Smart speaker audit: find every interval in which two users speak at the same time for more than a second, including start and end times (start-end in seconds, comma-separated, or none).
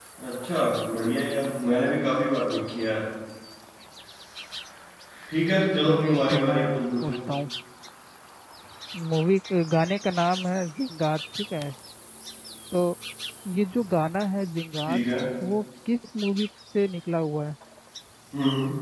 5.9-7.2